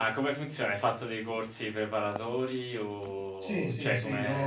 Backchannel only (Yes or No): No